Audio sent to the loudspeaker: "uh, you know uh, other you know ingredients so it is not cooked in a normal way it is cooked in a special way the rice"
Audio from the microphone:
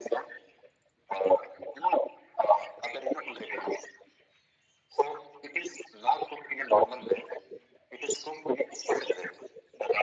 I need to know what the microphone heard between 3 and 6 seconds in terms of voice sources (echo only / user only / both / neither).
echo only